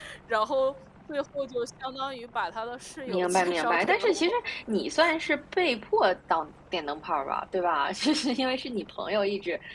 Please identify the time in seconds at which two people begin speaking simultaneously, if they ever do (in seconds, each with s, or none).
3.1 s